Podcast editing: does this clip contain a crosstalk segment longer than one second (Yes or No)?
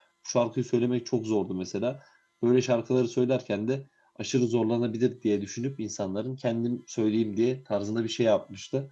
No